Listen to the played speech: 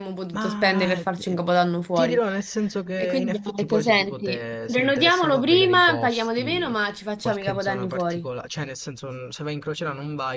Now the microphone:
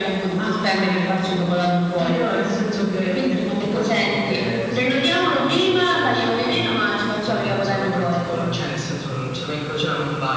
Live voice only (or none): none